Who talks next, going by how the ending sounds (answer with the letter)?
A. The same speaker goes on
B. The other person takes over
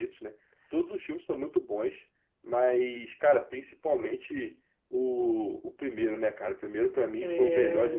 B